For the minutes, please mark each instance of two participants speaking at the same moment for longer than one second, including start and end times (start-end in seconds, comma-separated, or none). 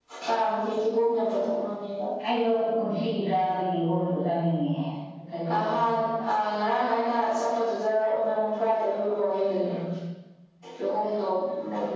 none